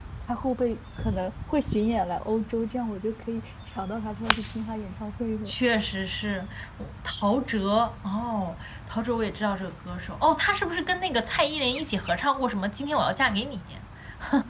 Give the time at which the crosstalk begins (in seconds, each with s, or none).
none